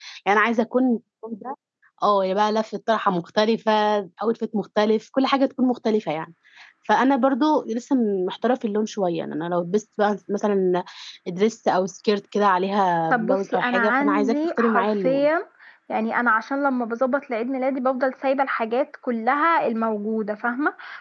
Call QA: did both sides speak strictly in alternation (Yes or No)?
No